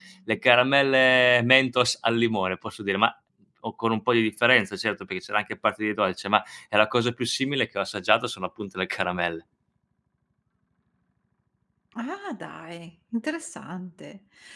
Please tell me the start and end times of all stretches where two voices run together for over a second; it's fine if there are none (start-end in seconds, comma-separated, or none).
none